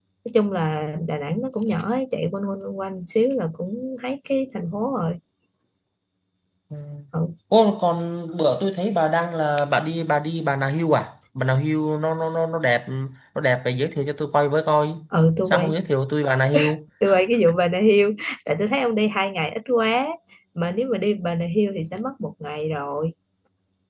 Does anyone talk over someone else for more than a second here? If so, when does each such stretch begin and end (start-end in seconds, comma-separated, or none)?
none